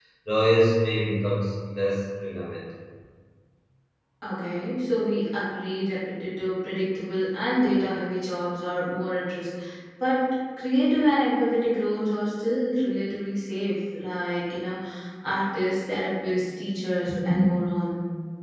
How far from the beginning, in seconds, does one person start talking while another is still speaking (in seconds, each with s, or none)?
none